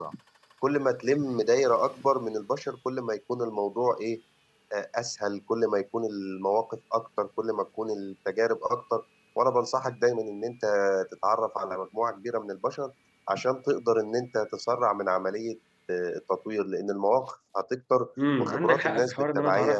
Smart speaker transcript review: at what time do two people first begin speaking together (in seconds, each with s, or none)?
18.2 s